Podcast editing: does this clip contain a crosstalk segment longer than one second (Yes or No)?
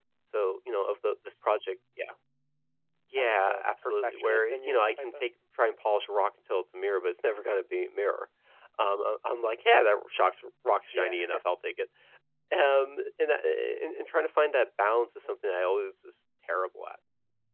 Yes